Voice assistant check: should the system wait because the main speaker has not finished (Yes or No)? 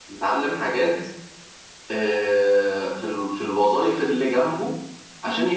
Yes